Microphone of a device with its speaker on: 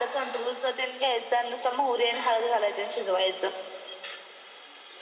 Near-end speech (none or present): none